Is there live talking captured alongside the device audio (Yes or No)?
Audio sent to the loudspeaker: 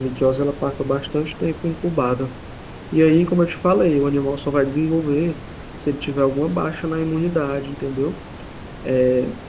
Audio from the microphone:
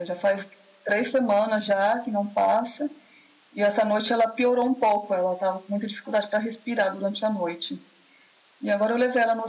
Yes